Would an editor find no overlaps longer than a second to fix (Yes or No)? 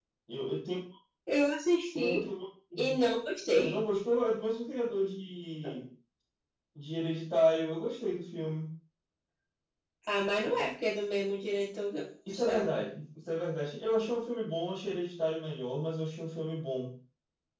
Yes